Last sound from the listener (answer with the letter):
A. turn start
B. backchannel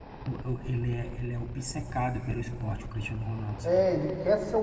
A